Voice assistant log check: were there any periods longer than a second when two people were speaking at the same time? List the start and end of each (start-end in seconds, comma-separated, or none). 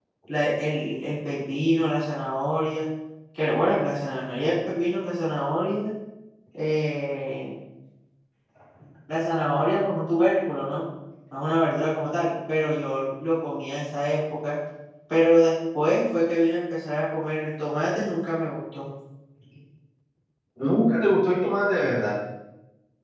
none